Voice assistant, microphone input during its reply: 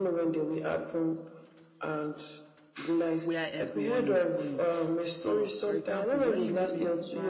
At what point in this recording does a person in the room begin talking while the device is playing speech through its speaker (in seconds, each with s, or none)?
3.2 s